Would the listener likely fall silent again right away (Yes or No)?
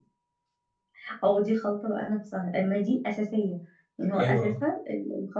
Yes